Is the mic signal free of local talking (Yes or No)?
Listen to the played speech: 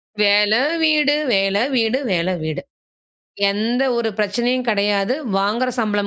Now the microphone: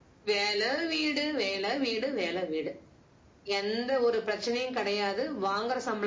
Yes